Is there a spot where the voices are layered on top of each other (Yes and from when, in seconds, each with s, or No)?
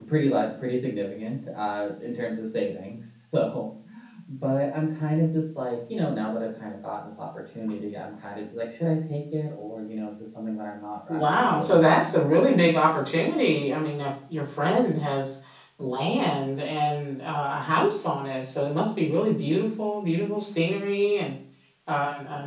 Yes, from 11.1 s